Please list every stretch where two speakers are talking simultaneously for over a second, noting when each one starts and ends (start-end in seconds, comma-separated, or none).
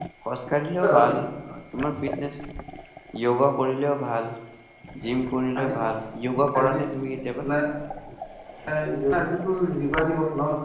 none